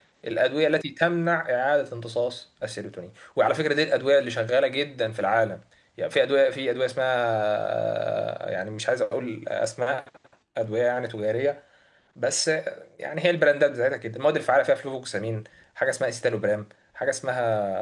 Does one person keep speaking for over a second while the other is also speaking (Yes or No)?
No